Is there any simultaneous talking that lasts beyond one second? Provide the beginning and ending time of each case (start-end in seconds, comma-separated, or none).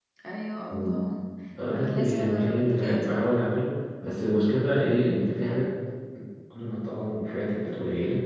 1.7-3.2